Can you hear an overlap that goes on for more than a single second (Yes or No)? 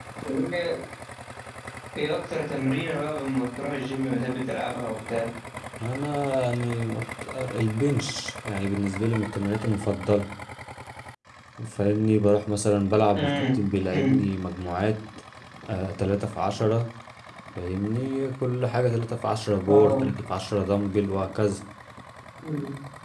No